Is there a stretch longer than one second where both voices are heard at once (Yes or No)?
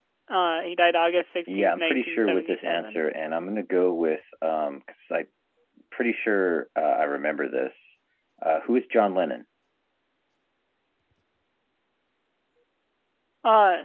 Yes